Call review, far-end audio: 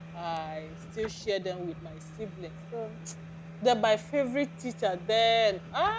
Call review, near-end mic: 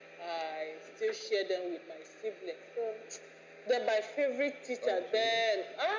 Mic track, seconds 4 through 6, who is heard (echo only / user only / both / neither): both